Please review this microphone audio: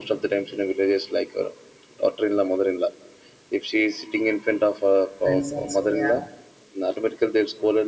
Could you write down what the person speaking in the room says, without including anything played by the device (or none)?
friends also yeah